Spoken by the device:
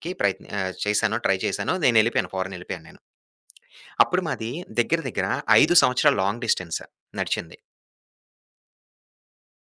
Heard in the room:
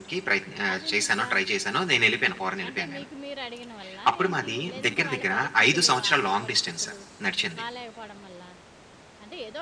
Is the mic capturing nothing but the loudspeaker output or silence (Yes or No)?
No